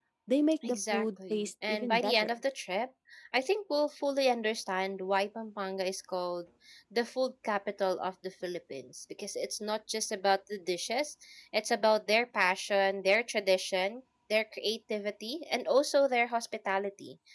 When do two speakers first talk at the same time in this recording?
0.6 s

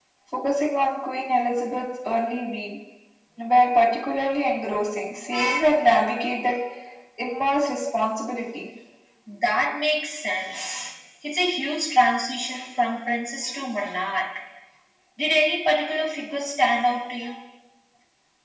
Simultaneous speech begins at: none

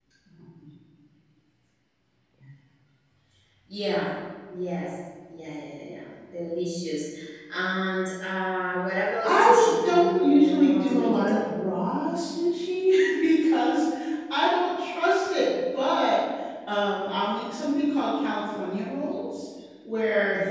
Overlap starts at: 9.2 s

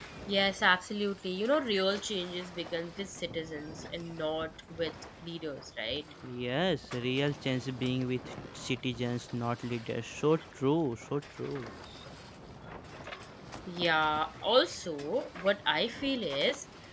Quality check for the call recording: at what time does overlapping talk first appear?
none

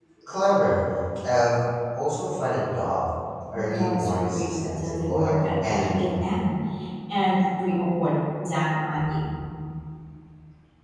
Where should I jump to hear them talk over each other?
3.7 s

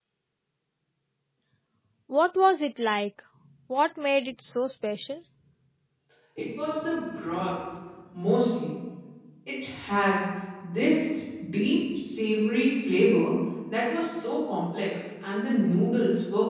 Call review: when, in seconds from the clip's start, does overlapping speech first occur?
none

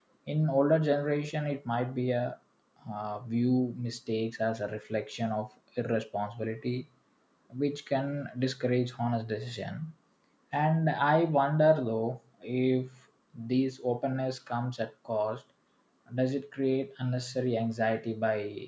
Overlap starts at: none

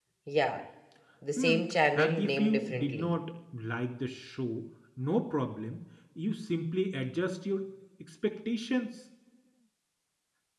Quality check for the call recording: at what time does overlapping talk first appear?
1.4 s

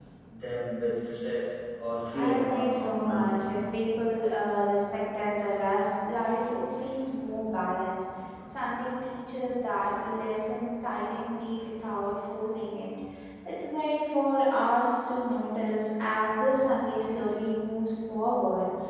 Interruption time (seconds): 2.1 s

